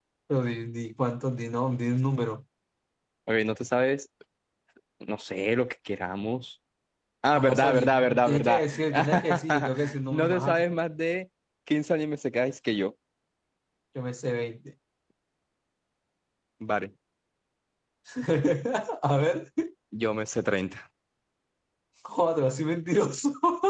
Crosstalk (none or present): present